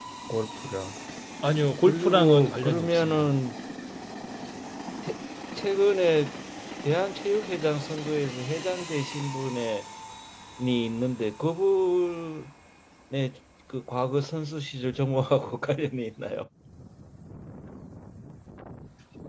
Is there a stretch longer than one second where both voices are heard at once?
Yes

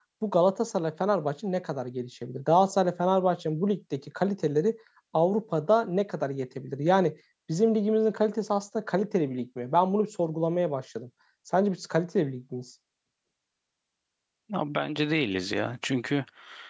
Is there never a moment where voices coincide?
Yes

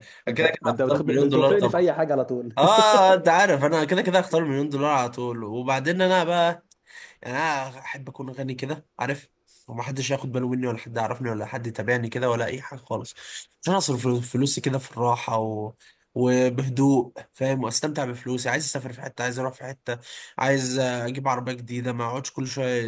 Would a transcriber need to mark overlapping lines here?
Yes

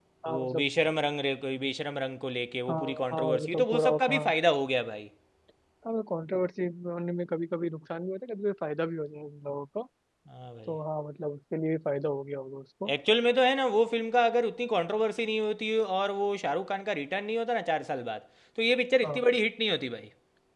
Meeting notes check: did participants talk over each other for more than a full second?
Yes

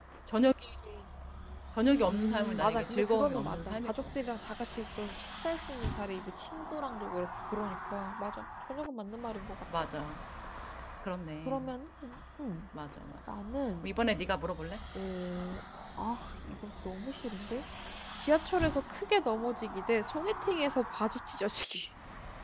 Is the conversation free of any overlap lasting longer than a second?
No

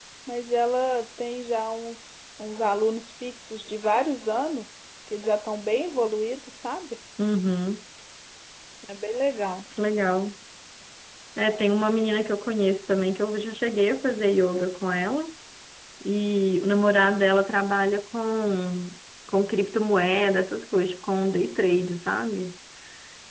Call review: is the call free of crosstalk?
Yes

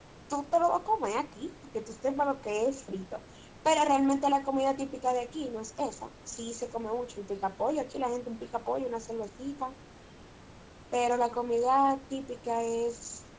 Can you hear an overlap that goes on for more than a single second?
No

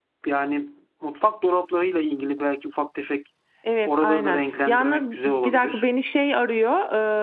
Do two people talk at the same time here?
Yes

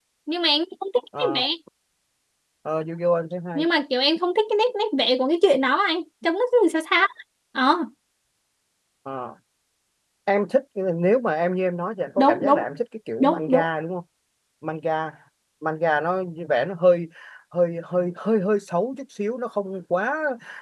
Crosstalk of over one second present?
No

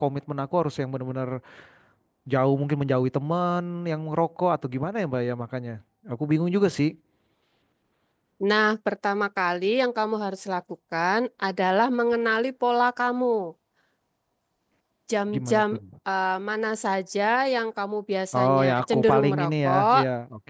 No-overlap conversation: No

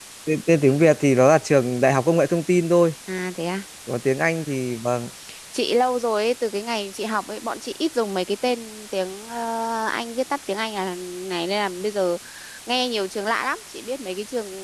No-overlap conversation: Yes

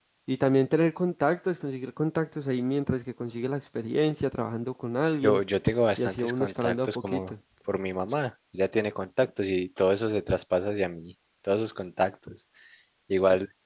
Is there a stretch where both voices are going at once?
Yes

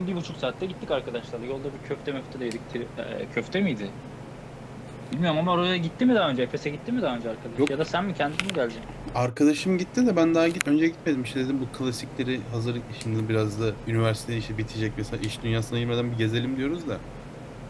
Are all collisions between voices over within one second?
Yes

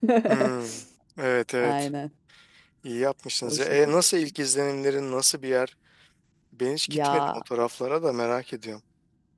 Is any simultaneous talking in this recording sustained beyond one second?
No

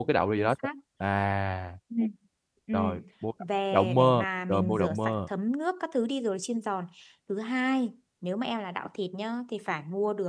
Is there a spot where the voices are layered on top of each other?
Yes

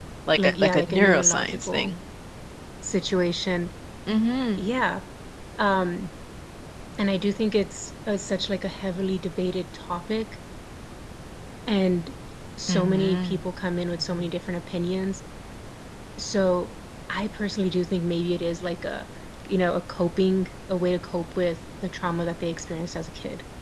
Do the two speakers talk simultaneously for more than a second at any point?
Yes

